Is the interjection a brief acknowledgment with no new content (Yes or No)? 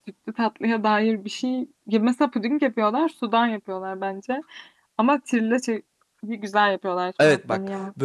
No